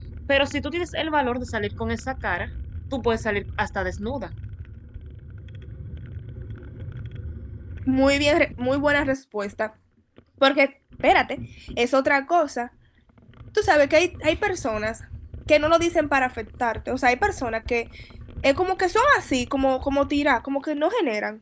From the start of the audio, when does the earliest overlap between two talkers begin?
none

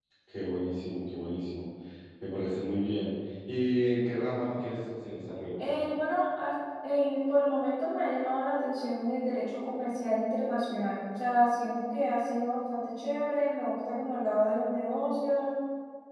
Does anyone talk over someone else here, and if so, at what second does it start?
none

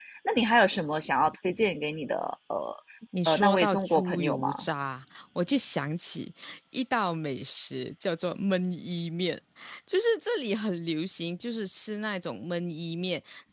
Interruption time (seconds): 3.3 s

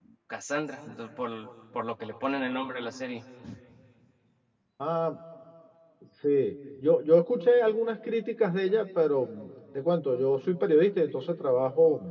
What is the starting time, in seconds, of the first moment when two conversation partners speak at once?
none

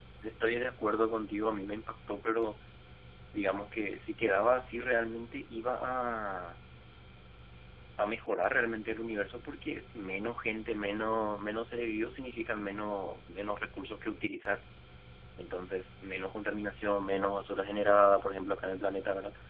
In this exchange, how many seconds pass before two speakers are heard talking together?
none

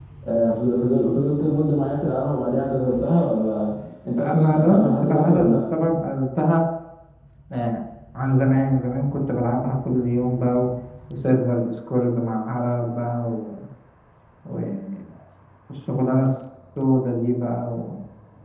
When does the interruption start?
4.2 s

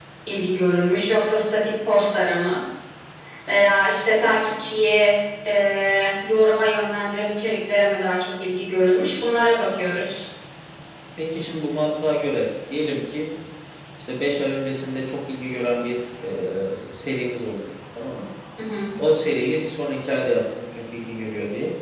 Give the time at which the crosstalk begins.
none

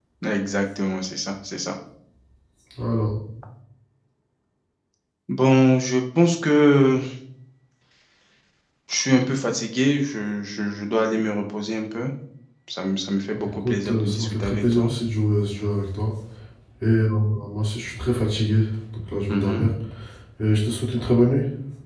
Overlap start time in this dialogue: 13.3 s

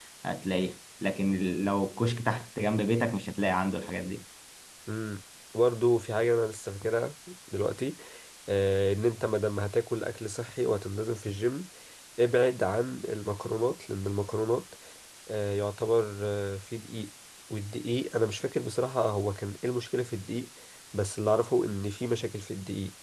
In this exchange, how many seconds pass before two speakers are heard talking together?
none

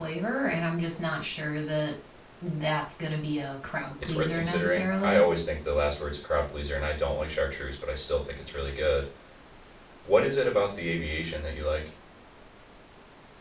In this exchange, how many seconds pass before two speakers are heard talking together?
4.0 s

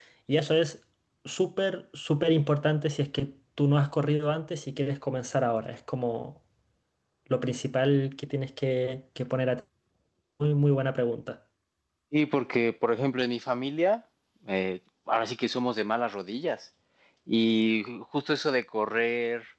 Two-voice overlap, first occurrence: none

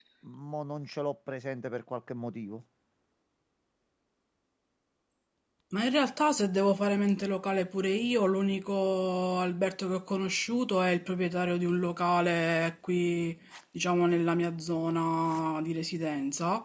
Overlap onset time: none

